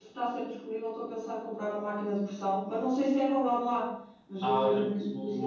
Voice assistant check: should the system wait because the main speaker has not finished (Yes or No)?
No